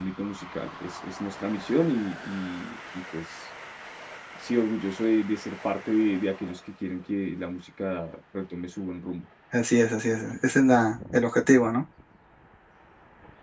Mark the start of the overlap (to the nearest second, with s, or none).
none